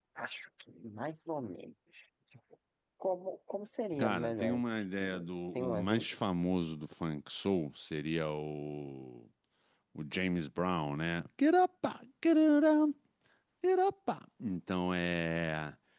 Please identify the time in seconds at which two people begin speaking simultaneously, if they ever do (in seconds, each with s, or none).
3.9 s